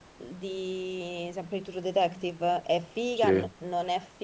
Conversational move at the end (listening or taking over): listening